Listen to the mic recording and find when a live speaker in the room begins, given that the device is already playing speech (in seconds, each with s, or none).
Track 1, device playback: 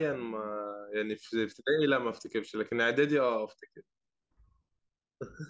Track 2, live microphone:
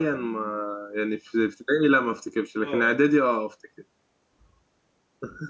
2.6 s